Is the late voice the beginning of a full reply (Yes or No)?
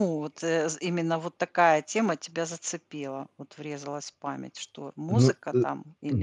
Yes